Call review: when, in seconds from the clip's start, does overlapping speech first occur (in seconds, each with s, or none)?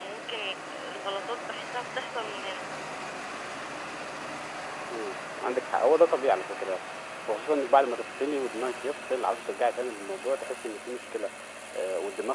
none